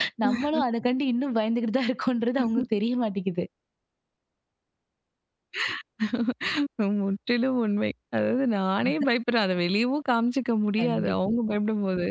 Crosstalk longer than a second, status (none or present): none